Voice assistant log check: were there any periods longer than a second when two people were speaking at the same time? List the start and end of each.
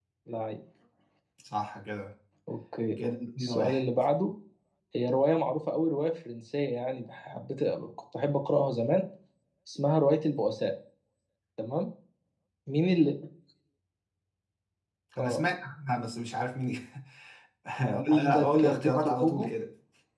18.1-19.5

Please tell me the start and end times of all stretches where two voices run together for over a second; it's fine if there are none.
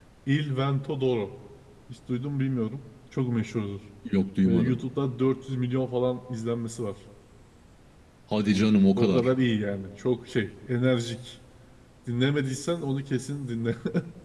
none

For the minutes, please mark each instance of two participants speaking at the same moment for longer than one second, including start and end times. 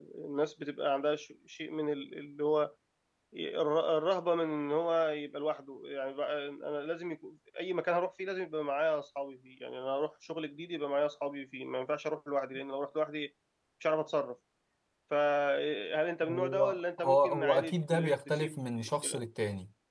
16.3-18.6

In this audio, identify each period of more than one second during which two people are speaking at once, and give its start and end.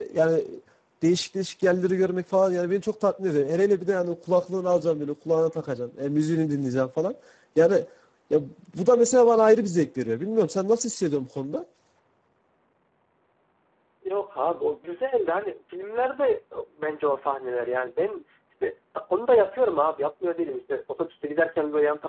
none

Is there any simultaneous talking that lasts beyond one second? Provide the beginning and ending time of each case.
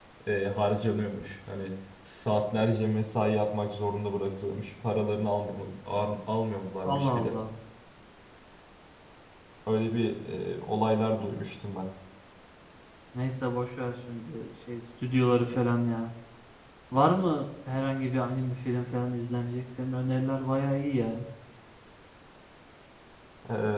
none

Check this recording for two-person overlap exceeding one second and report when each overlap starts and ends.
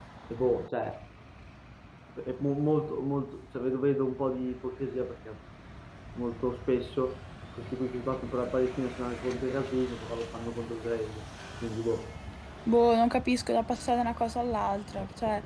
none

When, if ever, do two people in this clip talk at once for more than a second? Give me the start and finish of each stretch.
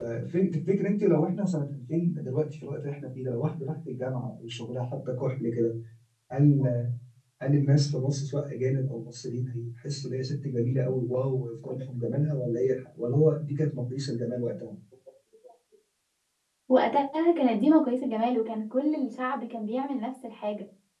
none

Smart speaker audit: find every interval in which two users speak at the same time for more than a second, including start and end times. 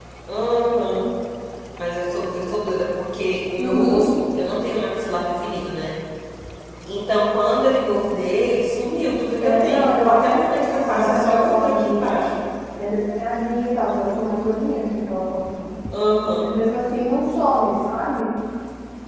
9.4-12.2

